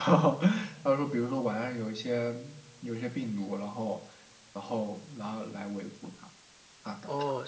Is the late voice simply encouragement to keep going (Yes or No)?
No